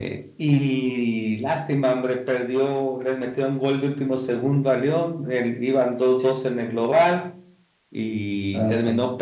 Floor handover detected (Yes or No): No